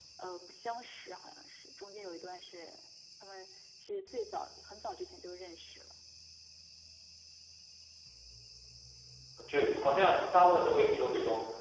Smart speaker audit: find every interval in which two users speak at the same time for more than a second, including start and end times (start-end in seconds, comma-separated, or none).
none